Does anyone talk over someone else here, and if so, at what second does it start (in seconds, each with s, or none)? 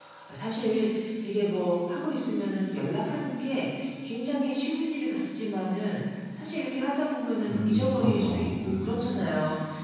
7.4 s